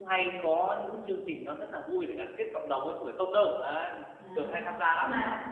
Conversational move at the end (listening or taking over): taking over